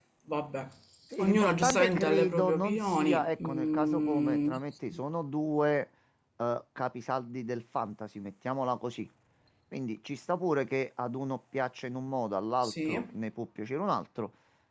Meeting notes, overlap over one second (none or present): present